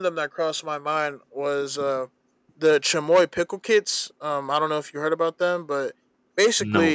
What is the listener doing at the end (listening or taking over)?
listening